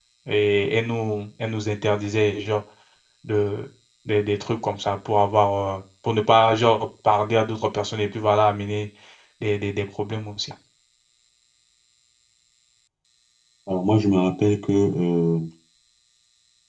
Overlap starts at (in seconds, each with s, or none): none